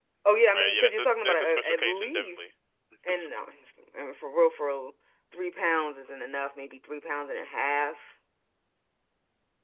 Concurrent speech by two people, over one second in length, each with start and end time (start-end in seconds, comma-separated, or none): 0.5-2.4